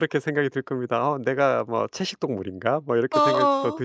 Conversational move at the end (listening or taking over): listening